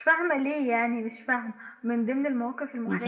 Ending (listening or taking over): listening